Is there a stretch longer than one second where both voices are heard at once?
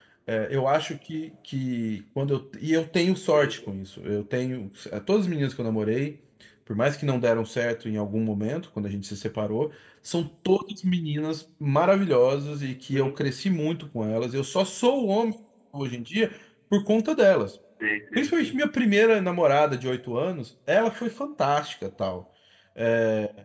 No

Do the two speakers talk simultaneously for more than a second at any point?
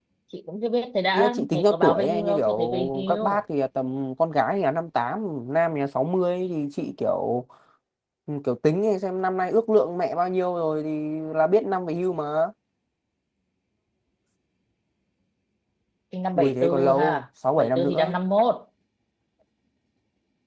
Yes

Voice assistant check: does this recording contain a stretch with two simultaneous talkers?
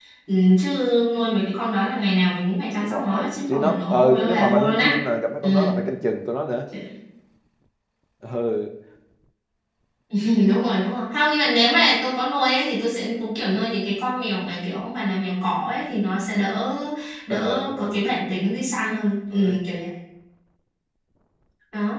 Yes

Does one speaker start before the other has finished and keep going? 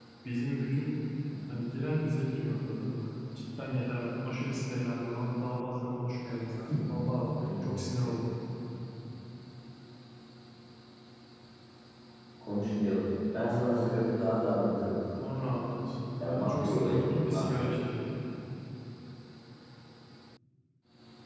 Yes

